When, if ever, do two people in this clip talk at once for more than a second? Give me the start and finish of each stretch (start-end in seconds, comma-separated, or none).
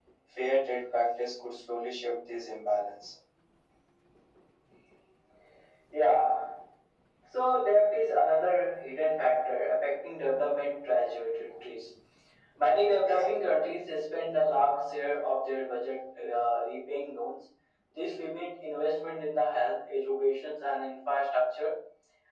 none